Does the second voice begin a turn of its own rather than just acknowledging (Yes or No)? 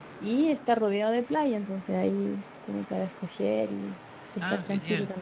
Yes